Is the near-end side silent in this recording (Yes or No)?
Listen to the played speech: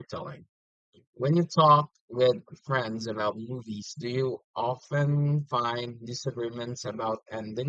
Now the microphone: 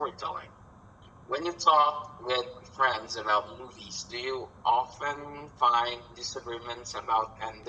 Yes